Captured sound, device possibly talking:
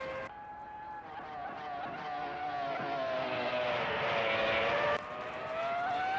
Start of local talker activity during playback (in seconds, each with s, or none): none